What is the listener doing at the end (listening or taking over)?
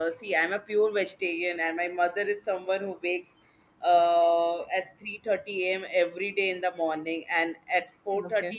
listening